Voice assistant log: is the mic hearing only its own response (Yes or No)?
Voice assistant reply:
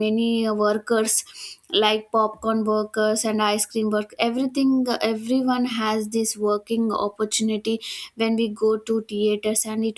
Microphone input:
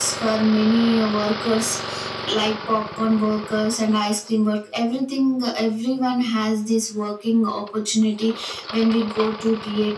Yes